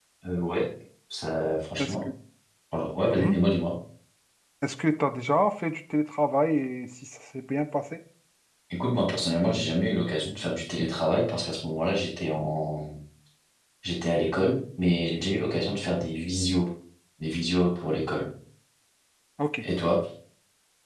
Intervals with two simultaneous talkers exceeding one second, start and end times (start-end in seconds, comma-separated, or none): none